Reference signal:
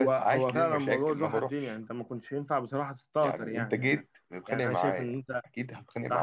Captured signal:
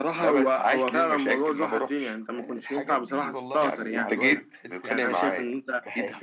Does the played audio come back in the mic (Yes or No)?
Yes